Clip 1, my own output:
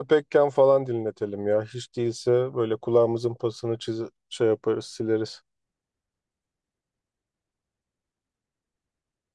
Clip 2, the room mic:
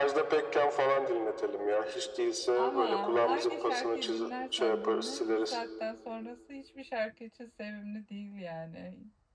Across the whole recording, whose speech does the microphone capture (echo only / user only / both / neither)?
both